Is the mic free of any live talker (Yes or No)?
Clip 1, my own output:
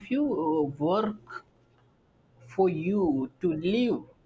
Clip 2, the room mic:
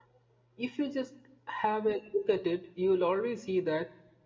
No